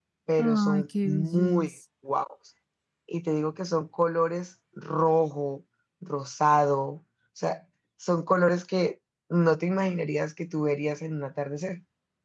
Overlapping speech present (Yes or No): Yes